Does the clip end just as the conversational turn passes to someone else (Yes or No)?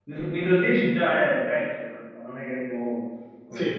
Yes